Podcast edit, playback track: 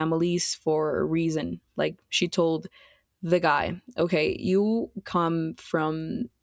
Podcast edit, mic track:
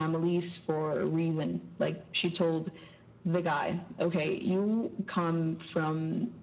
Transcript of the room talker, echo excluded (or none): none